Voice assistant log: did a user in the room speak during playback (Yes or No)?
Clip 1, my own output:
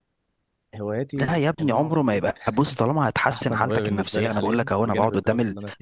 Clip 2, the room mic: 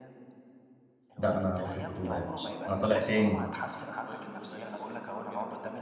Yes